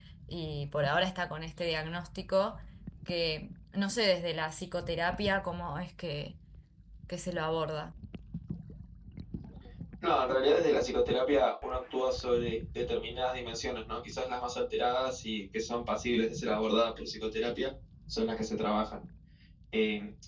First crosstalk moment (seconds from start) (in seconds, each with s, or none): none